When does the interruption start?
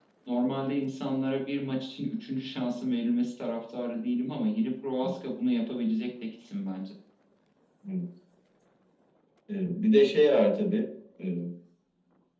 none

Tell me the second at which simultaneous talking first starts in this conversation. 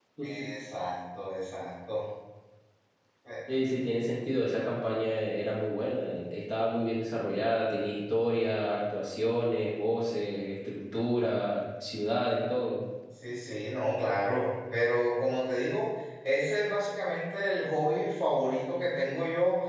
none

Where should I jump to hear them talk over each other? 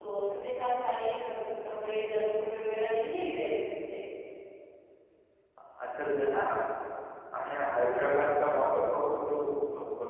none

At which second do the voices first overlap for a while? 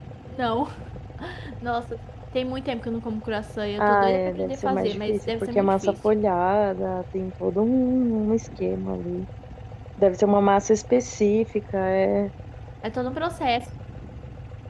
3.8 s

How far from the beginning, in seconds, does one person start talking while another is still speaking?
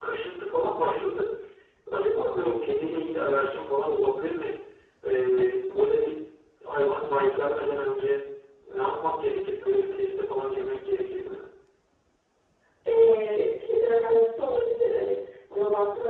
none

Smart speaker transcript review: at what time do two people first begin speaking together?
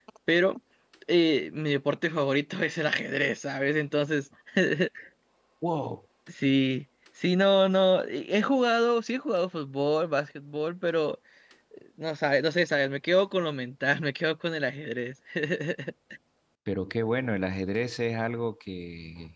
none

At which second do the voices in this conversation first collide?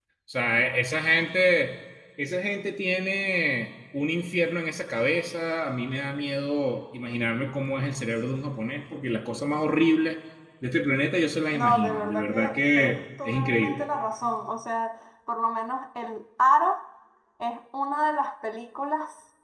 11.5 s

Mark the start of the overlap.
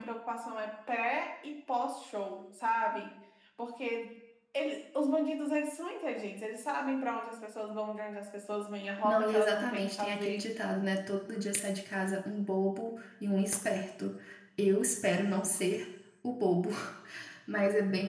9.0 s

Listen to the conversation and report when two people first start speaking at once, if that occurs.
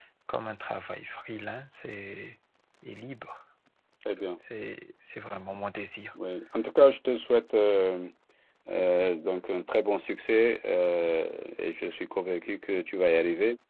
none

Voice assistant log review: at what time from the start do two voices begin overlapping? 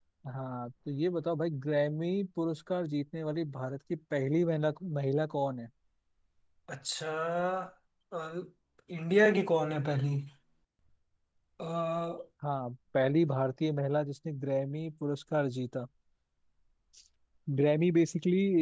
none

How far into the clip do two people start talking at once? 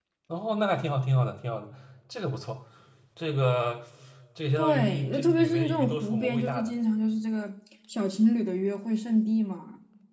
4.6 s

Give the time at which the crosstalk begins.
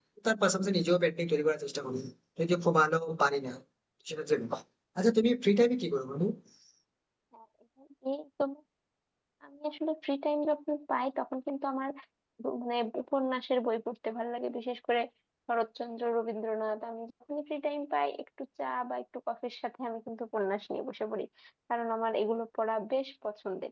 none

